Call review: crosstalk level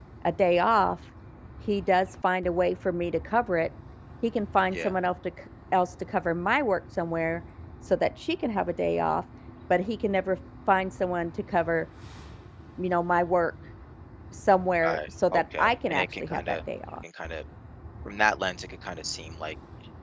present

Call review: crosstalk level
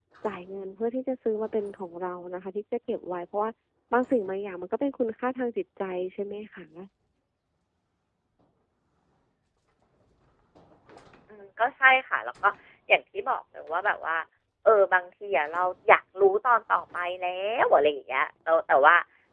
none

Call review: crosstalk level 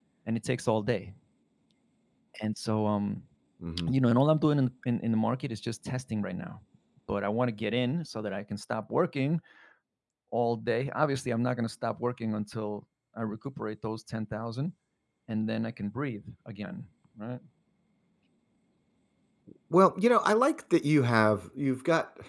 none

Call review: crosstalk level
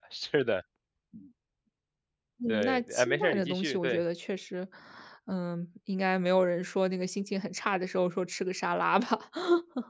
present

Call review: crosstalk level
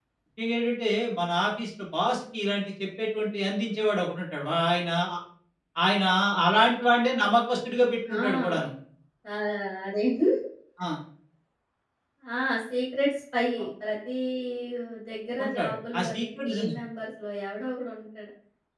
present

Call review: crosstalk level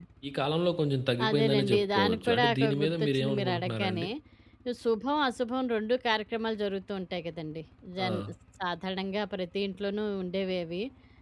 present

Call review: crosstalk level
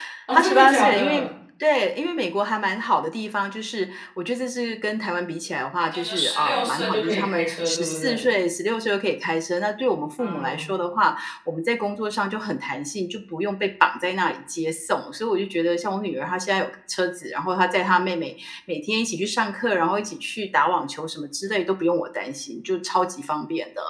present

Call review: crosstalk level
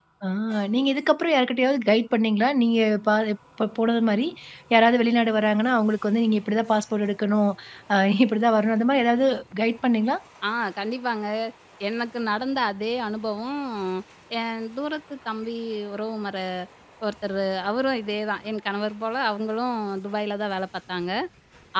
none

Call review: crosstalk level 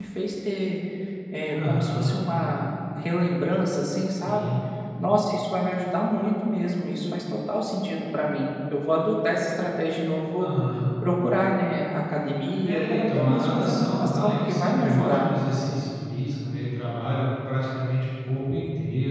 present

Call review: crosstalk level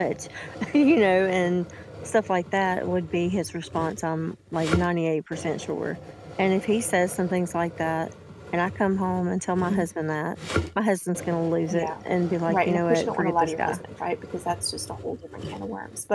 present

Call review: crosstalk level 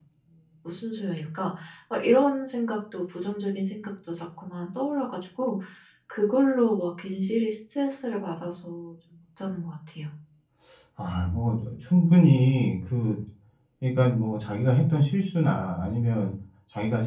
none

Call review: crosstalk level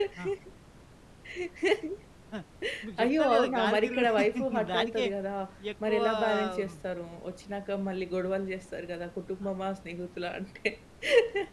present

